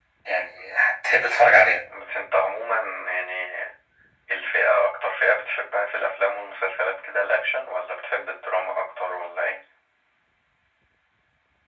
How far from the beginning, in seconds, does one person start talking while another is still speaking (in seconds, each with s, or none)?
none